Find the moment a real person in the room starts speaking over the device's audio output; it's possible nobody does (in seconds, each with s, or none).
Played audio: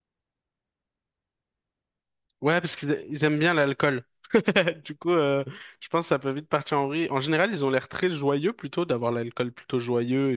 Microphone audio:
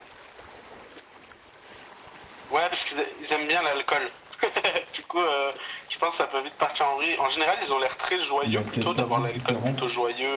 8.4 s